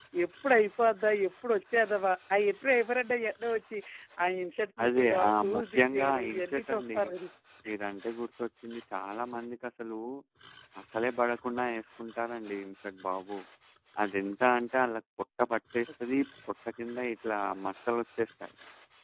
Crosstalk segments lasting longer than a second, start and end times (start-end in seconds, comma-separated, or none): 4.8-7.0